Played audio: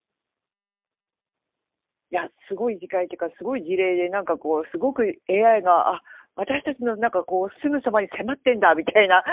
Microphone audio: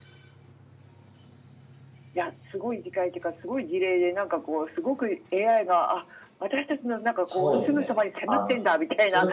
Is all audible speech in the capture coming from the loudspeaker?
No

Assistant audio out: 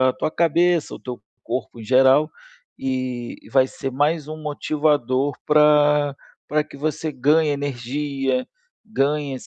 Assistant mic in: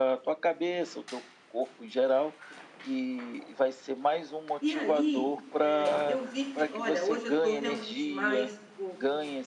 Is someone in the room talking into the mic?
Yes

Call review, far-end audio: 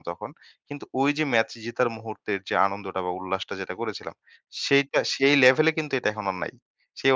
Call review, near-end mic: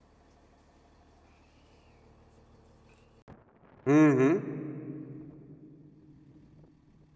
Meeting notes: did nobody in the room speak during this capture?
No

